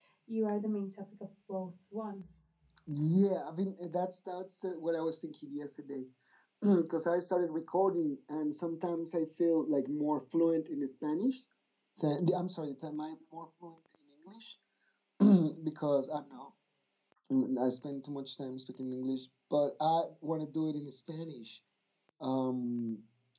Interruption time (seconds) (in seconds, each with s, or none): none